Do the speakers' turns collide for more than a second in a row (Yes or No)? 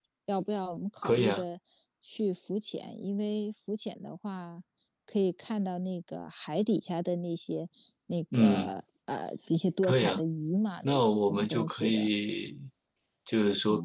Yes